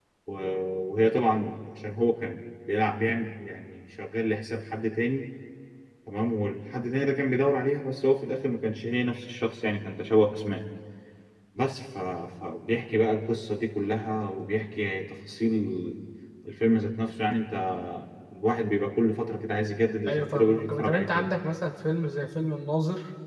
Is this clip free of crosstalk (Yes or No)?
No